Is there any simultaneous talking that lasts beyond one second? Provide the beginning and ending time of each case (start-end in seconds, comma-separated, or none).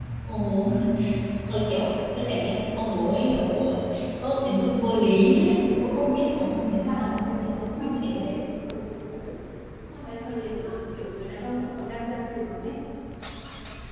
6.8-8.2